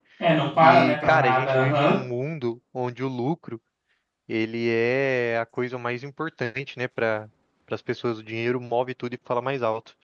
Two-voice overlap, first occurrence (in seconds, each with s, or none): 0.6 s